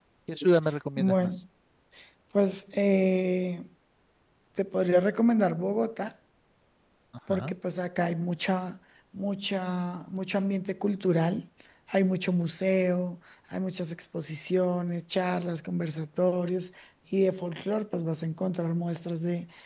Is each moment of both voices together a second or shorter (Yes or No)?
Yes